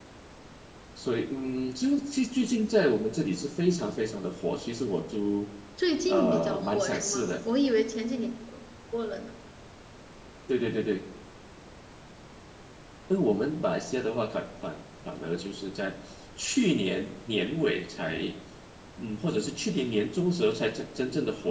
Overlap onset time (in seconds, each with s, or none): 6.1 s